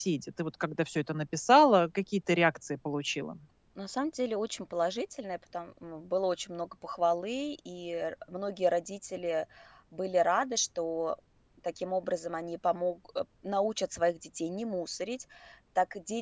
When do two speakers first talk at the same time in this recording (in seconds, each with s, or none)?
none